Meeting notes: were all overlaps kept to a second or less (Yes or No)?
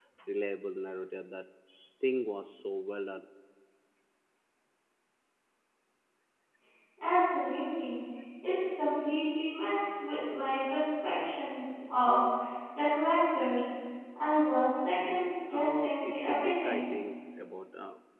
No